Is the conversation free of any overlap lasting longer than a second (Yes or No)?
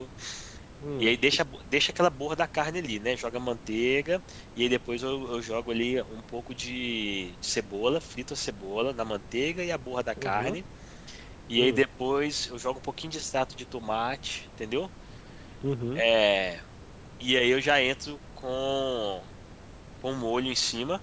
Yes